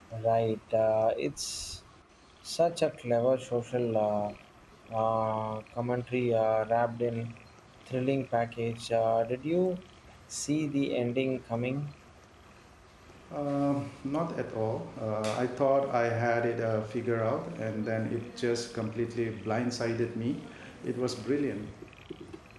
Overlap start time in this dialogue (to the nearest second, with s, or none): none